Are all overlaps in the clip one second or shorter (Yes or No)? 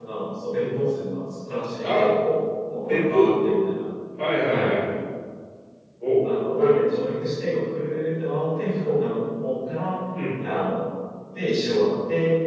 Yes